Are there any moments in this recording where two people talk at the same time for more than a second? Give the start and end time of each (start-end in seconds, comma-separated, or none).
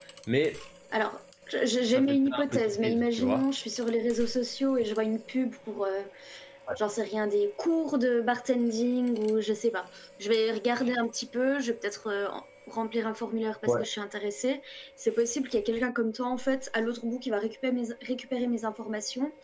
1.9-3.5